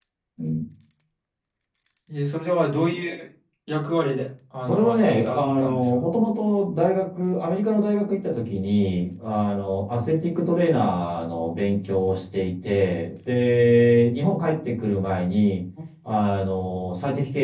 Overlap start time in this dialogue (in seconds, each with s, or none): 4.7 s